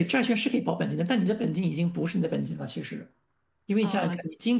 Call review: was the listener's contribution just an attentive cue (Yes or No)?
Yes